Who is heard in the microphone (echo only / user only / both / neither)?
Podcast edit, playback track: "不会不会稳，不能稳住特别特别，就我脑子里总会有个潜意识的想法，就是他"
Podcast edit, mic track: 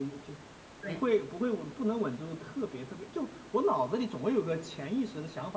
both